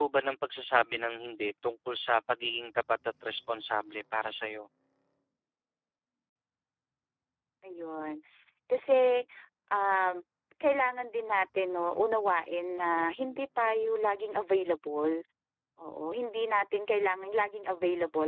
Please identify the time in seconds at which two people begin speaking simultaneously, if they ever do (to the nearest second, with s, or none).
none